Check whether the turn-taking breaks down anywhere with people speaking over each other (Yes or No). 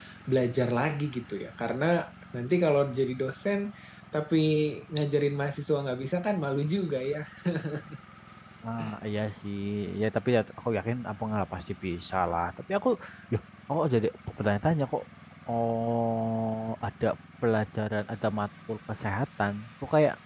No